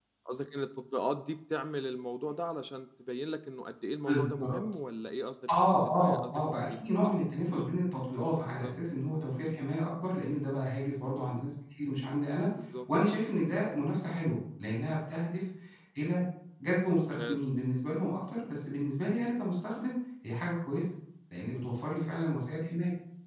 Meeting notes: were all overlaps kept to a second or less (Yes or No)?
No